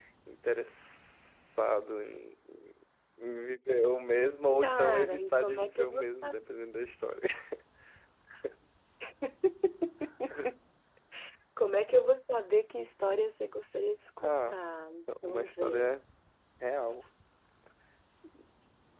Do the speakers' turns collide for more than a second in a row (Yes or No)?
Yes